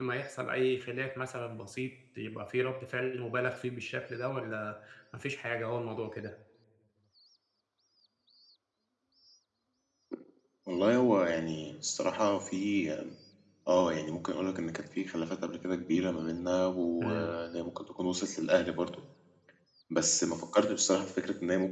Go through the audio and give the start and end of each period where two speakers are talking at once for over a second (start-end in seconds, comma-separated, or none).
none